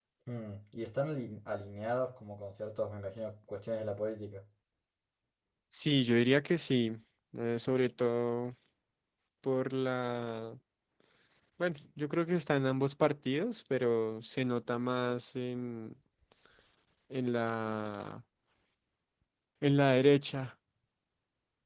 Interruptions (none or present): none